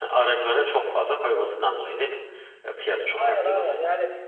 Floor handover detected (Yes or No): Yes